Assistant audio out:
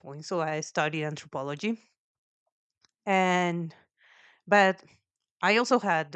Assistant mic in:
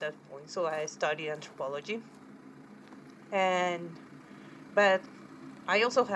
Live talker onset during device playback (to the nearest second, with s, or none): none